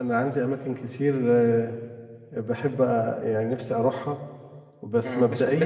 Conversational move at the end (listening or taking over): taking over